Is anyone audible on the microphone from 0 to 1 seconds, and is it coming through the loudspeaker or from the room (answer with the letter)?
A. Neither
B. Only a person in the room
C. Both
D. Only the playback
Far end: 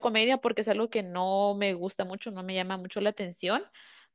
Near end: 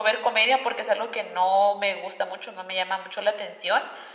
D